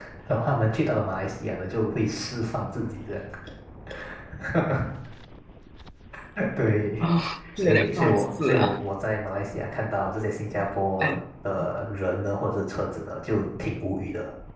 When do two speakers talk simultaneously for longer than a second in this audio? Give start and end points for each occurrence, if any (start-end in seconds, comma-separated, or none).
7.6-8.8